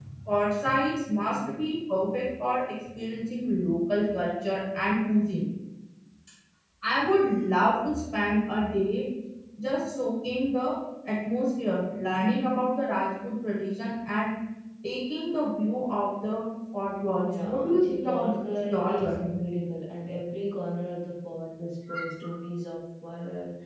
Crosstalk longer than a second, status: present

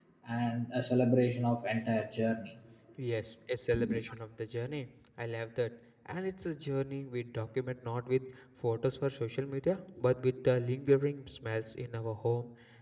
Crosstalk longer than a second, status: none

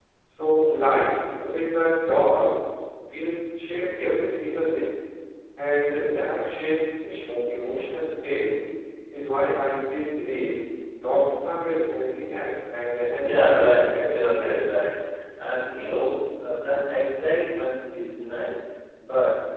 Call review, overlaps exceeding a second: present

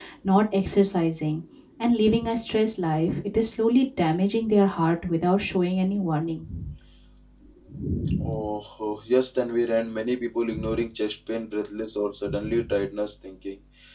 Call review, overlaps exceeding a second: none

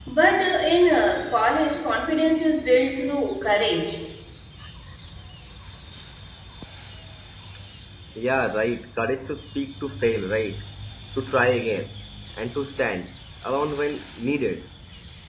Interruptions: none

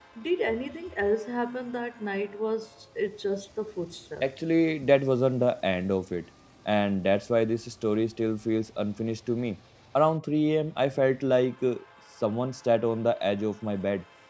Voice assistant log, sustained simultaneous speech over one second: none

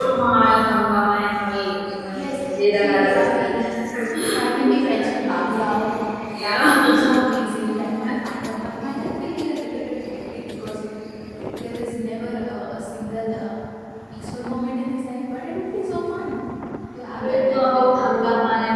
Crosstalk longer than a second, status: present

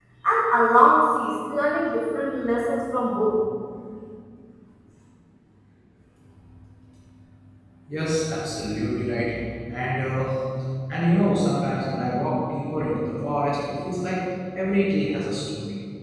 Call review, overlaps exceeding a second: none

